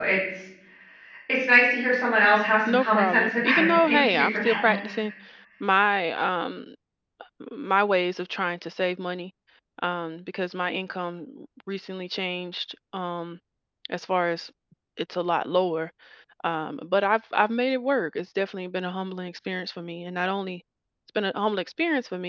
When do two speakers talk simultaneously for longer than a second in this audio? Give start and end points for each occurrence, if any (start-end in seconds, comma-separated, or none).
2.6-4.8